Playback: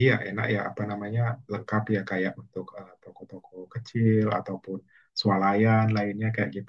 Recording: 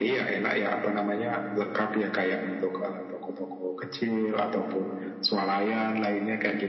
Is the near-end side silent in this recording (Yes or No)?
Yes